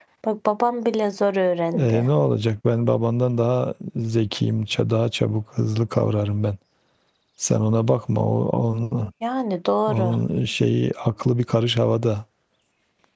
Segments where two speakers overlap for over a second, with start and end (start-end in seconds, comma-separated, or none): none